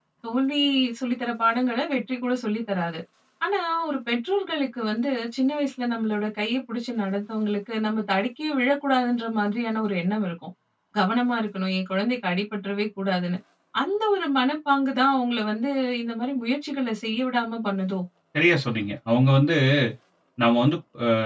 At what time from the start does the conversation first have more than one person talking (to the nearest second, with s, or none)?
none